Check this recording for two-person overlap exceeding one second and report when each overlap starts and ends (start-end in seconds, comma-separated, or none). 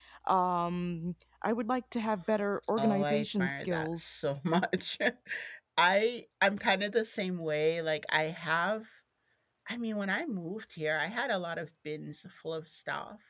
2.8-4.1